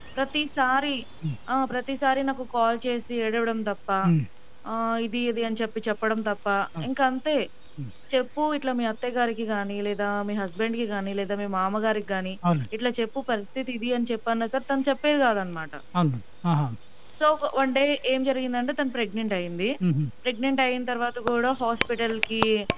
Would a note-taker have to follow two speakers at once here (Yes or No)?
No